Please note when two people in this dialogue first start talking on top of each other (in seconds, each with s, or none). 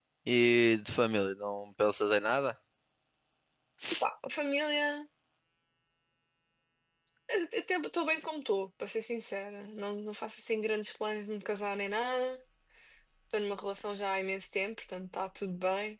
none